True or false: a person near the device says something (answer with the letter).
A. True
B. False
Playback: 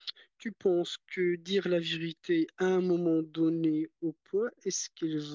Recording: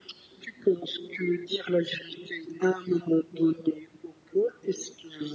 B